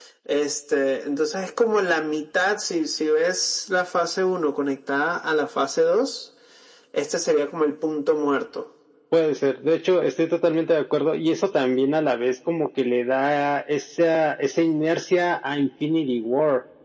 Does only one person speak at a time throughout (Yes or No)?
Yes